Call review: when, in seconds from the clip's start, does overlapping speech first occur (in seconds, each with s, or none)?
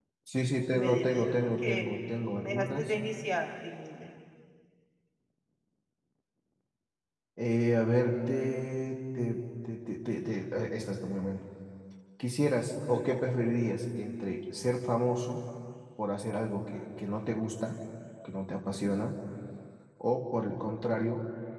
0.7 s